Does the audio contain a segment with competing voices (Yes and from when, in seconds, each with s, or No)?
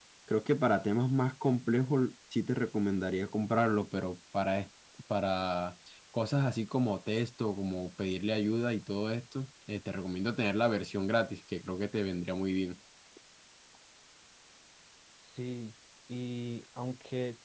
No